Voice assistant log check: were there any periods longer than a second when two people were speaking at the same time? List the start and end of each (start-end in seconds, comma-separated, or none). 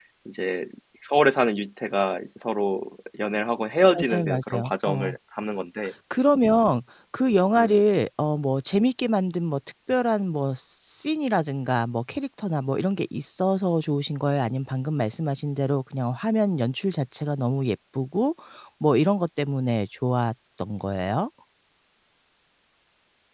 3.9-5.2